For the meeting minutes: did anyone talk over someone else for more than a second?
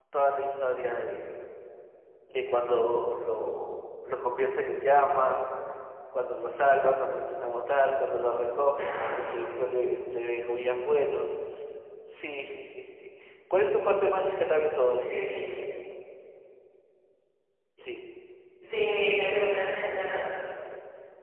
No

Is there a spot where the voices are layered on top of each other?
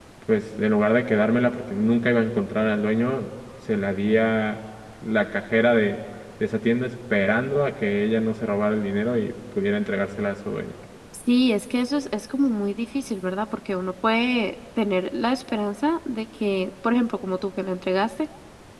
No

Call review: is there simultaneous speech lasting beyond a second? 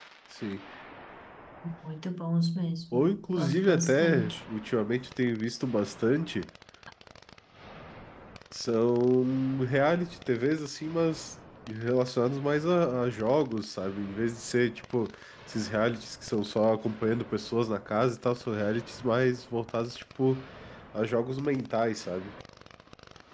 Yes, from 2.9 s

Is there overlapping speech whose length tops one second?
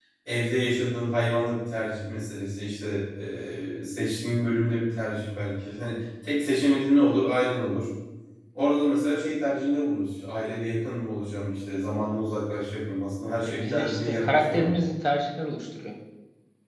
Yes, from 13.4 s

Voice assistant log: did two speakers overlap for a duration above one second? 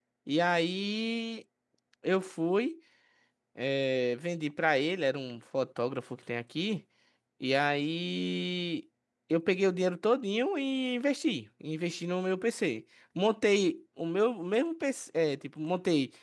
No

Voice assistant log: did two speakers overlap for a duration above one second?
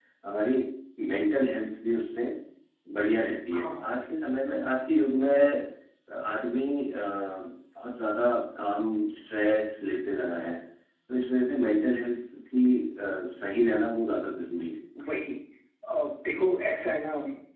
No

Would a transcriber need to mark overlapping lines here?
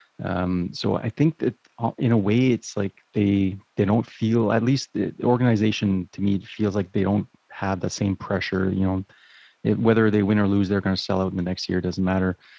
No

